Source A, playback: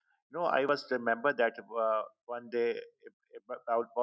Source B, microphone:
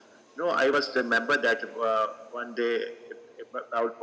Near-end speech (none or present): none